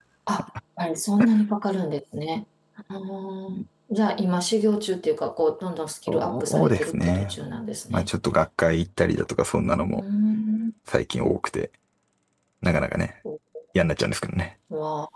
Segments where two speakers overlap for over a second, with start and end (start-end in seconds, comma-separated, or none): 6.1-7.4